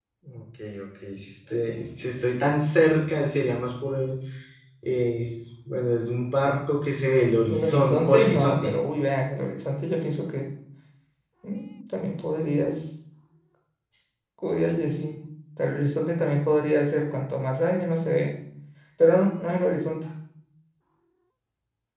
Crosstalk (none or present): present